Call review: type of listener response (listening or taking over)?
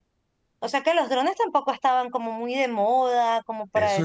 taking over